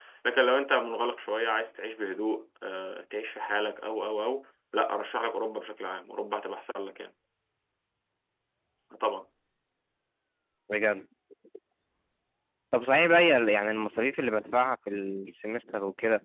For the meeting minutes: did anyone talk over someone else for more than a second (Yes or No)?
No